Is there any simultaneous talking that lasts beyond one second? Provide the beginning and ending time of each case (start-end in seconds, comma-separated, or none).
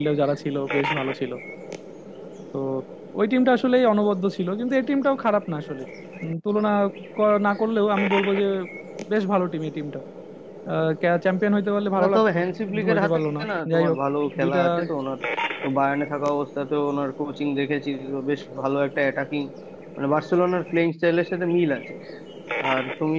12.0-14.0